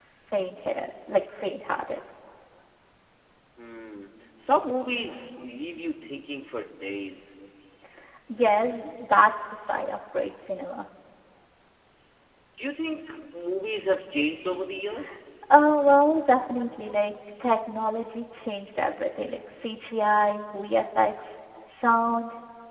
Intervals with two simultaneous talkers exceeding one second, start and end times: none

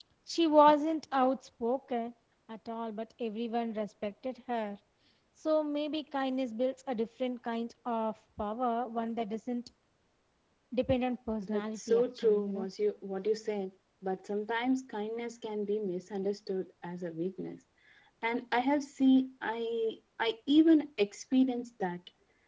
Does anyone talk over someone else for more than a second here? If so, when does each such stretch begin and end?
11.4-12.7

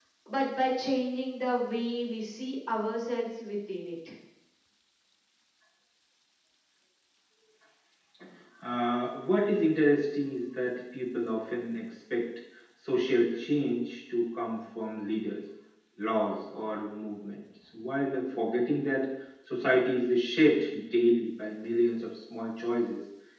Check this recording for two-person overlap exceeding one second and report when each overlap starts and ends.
none

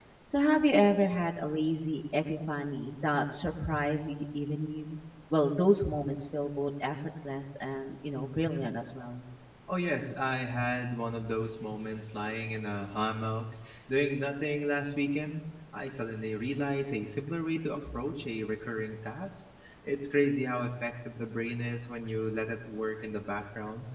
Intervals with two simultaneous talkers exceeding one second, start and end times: none

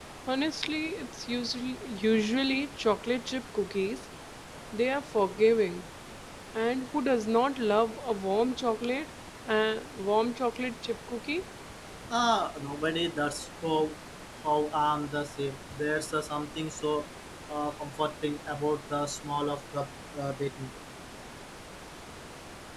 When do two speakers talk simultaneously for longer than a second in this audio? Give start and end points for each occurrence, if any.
none

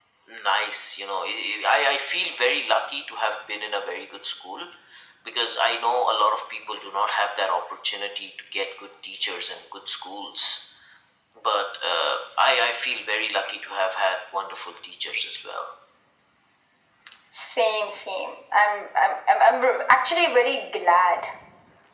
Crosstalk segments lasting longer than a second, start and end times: none

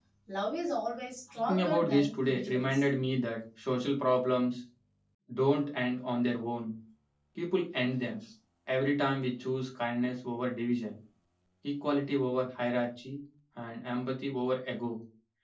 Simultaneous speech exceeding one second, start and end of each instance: 1.4-2.8

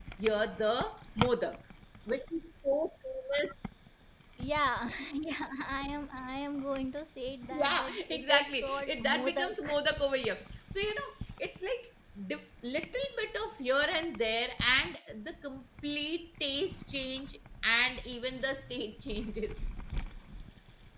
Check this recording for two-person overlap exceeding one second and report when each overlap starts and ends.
7.5-9.8

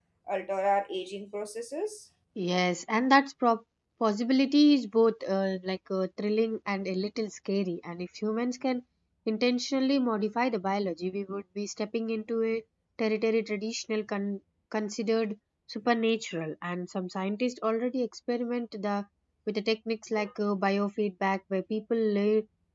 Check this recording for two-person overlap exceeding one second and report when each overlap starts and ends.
none

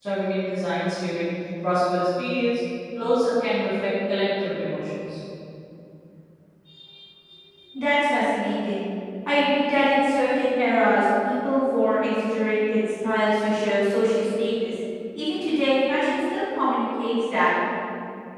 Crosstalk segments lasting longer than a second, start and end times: none

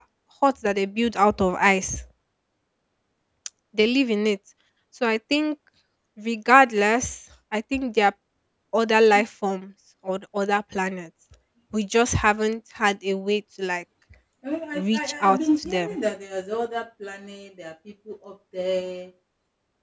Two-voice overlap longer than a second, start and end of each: 14.8-16.0

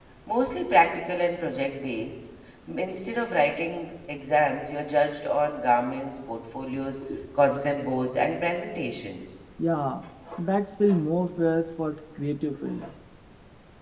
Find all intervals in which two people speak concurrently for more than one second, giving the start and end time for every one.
none

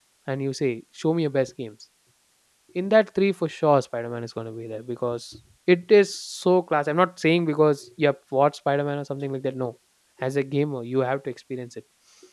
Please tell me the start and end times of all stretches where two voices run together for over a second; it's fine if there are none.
none

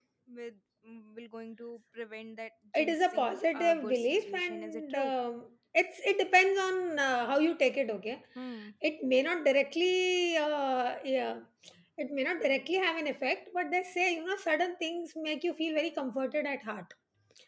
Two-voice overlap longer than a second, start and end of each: 2.8-5.1

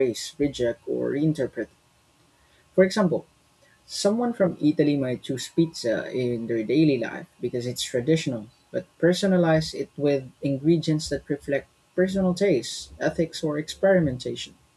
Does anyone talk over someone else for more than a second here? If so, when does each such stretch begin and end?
none

